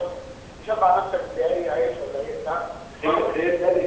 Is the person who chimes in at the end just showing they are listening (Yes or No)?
No